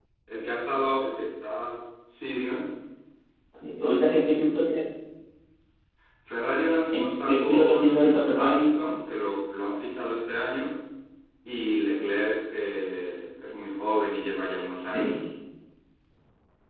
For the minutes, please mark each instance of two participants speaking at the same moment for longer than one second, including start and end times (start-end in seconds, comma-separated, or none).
6.9-8.7